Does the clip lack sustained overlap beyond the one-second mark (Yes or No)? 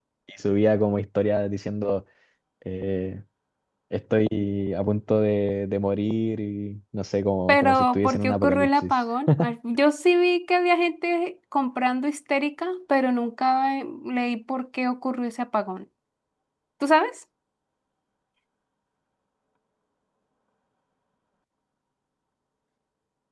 No